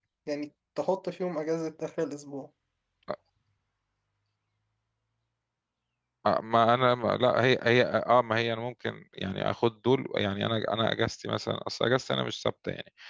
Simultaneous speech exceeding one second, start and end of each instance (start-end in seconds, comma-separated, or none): none